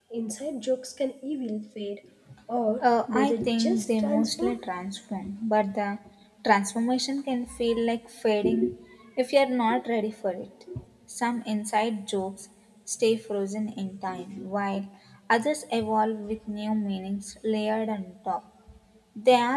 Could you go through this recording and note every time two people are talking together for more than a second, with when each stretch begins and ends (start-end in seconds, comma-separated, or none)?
2.8-4.6